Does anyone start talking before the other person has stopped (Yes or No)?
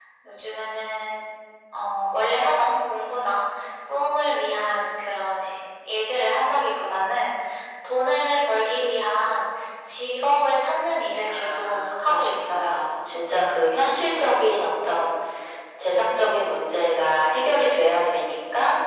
Yes